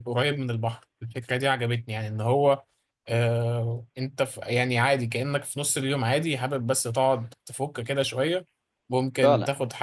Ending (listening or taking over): listening